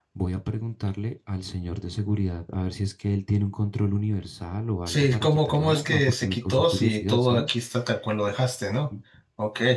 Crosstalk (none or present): present